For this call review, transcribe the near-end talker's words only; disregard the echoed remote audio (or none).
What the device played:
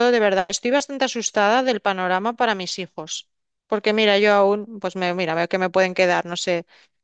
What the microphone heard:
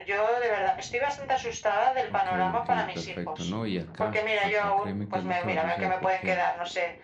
Ok, ok, perfecto. No, y acá, acá créeme qué es lo que va a suceder porque